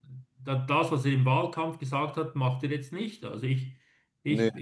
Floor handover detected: No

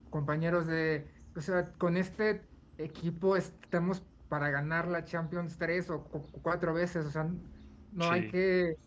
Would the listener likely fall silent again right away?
Yes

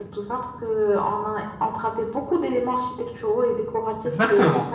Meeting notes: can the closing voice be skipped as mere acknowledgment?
No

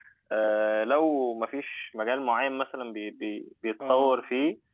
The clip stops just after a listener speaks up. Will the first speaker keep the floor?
Yes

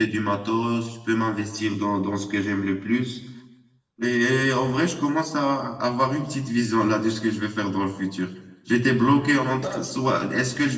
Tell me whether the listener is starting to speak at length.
No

